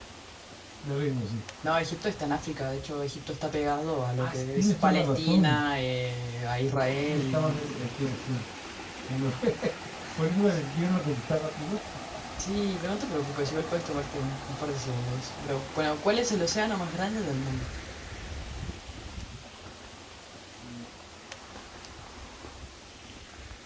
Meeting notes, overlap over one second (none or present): present